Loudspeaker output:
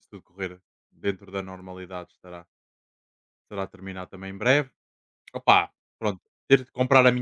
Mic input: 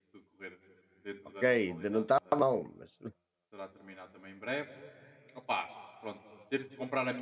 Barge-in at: 1 s

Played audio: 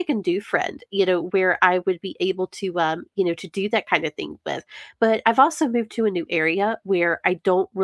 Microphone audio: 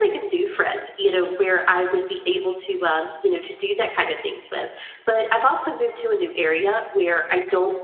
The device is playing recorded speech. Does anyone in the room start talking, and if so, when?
none

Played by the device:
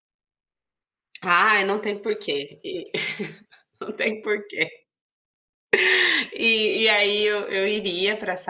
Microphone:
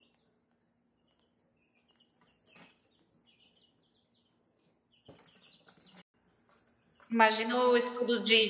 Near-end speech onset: 7 s

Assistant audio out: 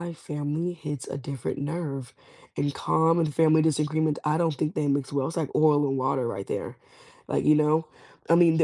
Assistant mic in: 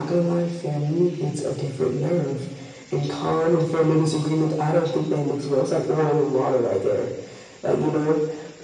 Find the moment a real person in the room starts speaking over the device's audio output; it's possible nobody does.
none

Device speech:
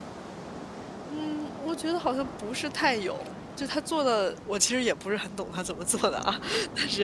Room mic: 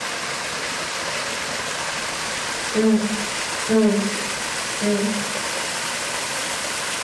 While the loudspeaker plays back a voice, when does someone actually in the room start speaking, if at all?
3 s

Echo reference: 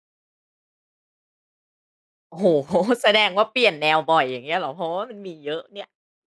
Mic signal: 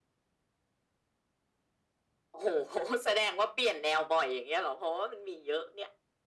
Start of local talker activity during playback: none

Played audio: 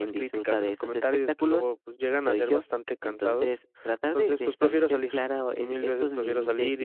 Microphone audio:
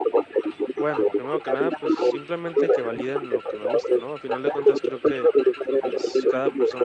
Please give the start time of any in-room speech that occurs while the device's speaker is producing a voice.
1 s

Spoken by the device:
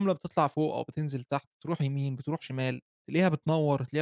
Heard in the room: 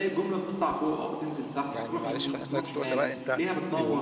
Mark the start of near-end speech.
2 s

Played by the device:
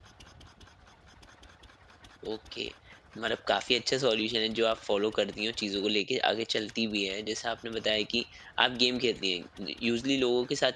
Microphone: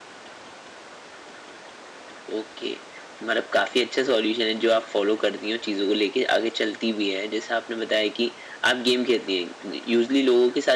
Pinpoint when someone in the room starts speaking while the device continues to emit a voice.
none

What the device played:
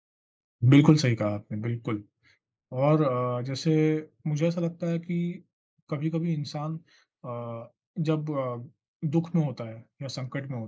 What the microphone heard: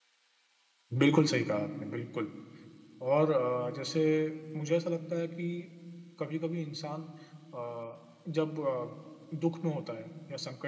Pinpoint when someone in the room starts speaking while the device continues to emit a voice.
none

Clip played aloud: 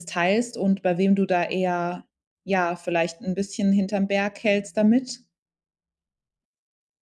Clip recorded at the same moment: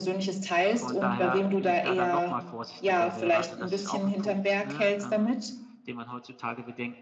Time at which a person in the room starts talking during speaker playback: 1 s

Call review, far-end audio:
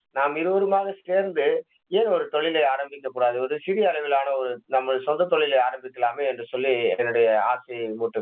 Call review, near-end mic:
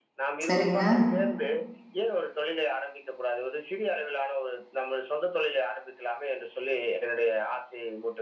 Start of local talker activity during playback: 0 s

